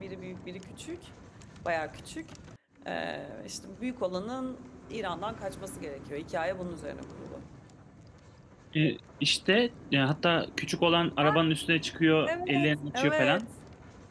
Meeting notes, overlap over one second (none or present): present